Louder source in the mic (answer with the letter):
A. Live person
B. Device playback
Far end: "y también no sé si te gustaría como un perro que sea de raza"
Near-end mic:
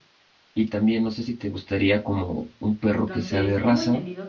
B